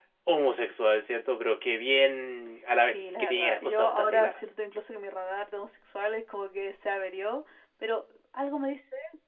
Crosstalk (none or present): present